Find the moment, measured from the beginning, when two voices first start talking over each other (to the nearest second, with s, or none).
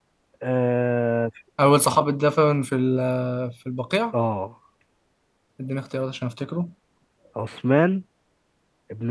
none